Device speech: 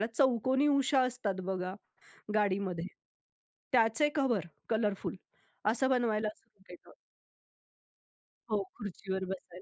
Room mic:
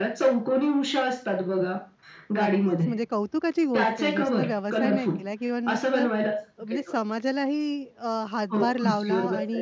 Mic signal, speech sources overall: both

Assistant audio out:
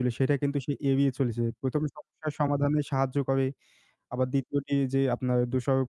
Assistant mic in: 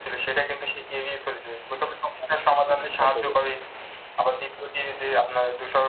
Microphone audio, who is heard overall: both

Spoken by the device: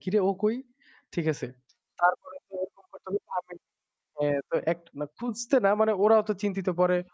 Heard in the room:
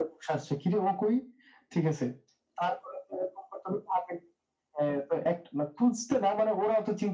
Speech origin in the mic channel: echo only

